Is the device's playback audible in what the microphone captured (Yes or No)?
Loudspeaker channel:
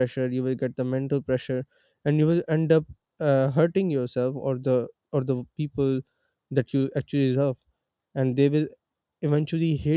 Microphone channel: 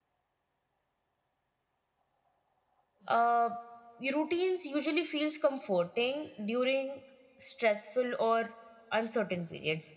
No